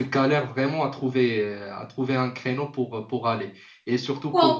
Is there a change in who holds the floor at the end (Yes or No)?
No